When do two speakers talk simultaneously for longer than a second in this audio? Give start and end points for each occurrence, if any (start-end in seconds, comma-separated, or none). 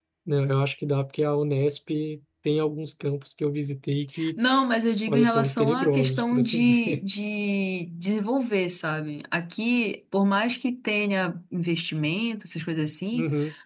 5.1-7.0